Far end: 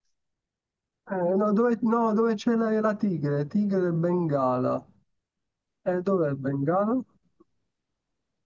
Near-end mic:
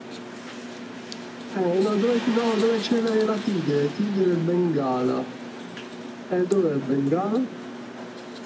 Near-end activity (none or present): none